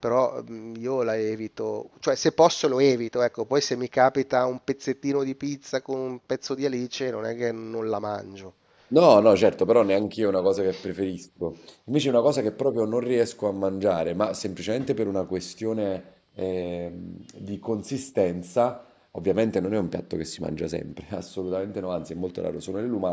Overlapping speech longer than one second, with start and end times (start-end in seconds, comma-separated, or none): none